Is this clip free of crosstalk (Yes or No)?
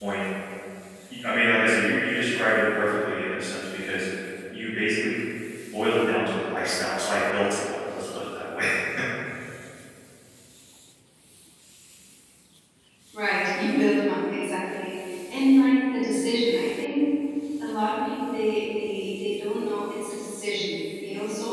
Yes